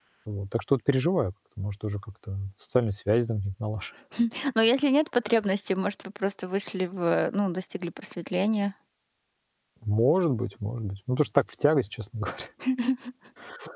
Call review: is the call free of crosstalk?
Yes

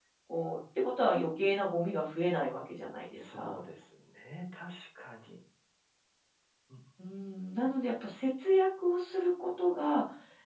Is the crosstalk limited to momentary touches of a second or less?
Yes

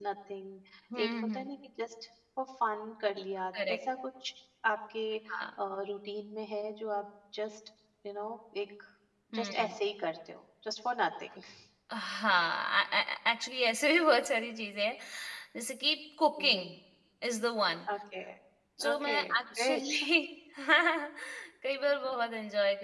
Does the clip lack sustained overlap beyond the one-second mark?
No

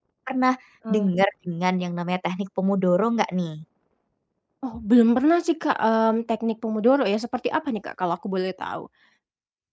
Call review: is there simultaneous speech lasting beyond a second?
No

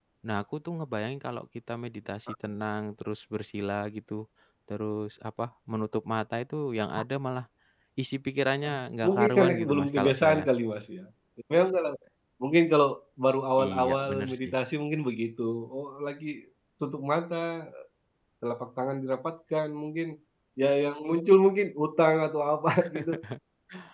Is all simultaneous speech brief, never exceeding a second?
No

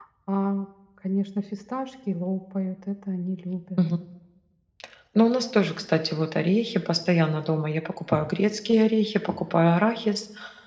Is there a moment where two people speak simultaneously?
No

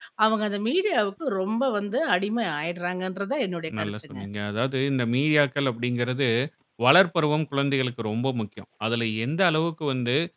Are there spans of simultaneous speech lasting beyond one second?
No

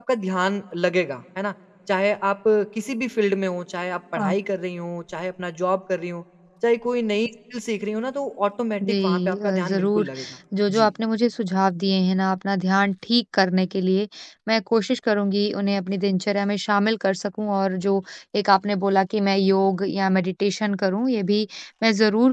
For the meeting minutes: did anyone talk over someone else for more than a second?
Yes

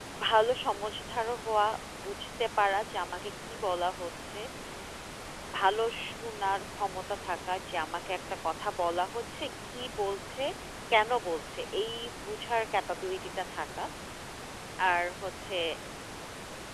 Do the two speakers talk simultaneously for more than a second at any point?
No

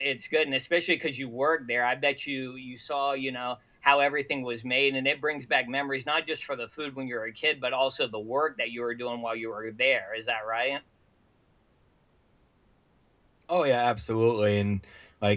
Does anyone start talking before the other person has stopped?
No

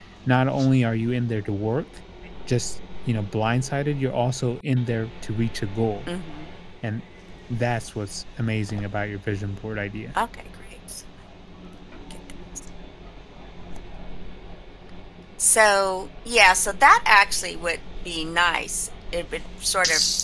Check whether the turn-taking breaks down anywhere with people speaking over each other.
No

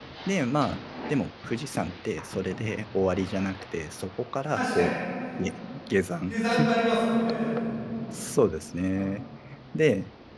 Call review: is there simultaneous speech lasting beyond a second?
No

